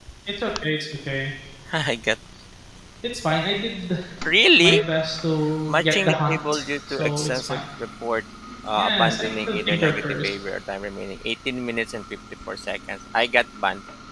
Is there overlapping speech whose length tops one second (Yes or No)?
Yes